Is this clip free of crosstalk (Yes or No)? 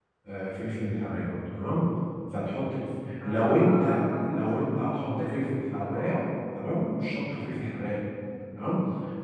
No